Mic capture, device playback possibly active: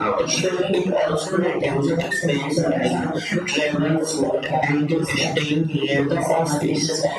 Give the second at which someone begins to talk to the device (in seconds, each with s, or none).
none